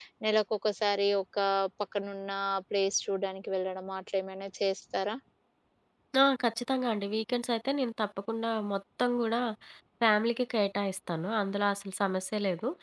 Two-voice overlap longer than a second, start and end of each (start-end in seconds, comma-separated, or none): none